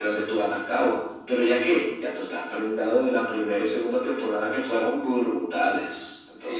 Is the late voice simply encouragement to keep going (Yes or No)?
No